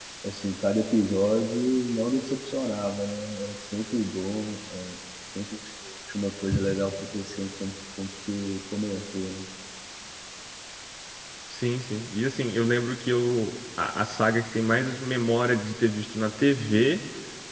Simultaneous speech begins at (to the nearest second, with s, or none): none